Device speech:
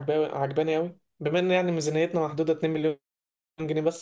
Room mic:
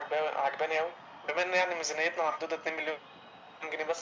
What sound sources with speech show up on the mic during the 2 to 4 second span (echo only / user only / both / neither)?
echo only